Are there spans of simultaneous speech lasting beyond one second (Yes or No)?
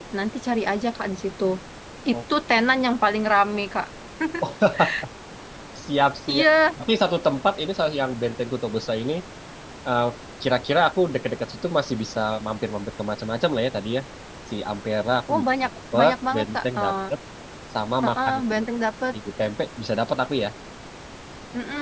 Yes